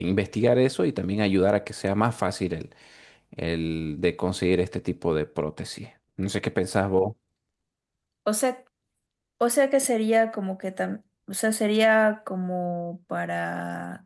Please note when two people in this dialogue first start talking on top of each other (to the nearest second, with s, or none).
none